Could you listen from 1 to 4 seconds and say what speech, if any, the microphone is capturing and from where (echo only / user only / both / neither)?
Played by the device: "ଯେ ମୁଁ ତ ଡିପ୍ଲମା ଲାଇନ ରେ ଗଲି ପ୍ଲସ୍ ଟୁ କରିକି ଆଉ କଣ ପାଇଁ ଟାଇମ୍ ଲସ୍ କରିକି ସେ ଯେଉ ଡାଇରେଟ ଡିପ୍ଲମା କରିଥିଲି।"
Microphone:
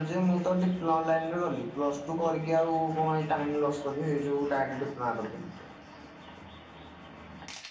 echo only